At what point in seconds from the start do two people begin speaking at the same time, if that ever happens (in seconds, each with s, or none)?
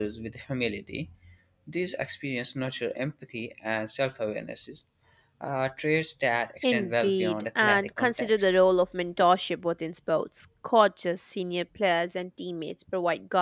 6.6 s